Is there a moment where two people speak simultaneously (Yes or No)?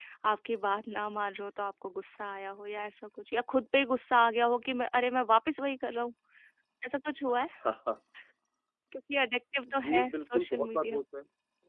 Yes